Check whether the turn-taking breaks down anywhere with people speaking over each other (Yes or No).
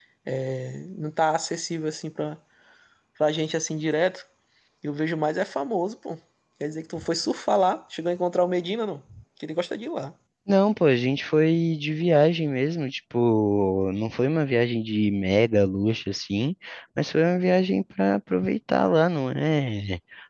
No